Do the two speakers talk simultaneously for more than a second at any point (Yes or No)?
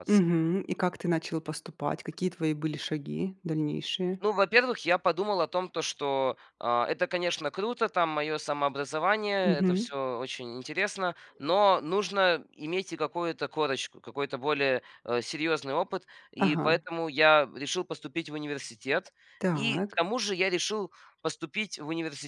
No